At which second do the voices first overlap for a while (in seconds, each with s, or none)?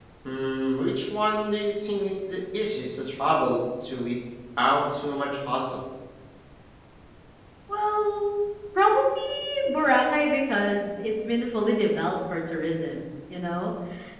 none